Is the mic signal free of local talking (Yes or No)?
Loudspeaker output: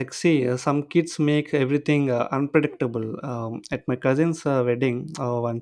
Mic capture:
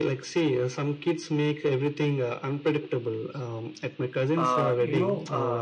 No